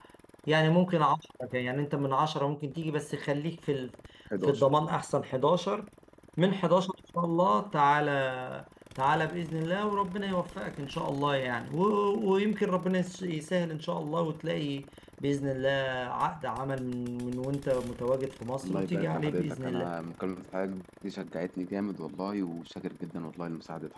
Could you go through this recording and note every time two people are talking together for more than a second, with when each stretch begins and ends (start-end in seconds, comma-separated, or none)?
18.6-19.9